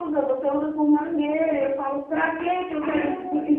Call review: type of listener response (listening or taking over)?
listening